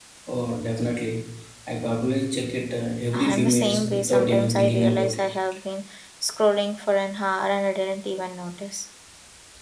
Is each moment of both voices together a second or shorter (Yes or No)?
No